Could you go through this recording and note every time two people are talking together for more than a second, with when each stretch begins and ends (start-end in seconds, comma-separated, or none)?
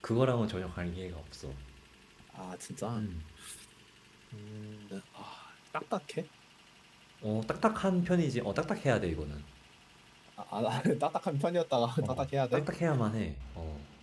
none